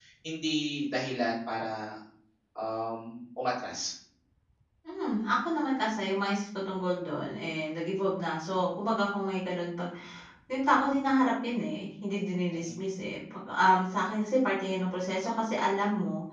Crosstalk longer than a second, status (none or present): none